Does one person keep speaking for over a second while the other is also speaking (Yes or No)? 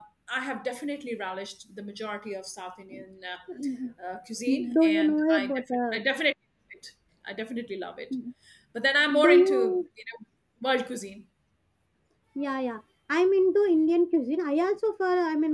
Yes